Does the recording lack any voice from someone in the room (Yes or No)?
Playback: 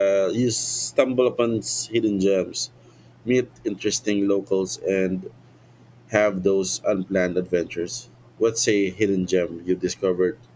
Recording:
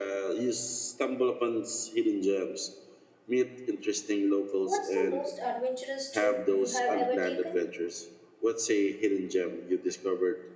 No